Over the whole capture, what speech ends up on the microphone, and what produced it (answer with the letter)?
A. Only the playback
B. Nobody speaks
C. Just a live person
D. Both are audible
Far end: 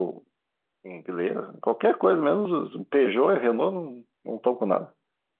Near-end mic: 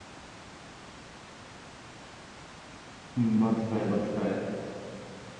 C